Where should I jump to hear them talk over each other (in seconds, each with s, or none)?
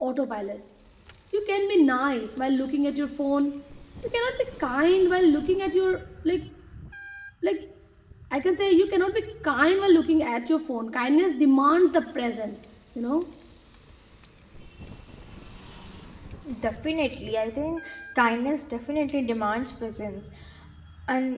none